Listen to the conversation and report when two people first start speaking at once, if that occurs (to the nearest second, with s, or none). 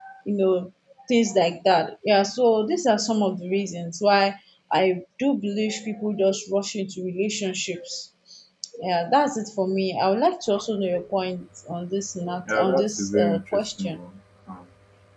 12 s